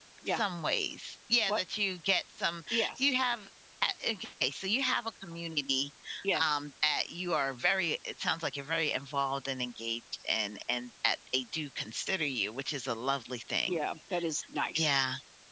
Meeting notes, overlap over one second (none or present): none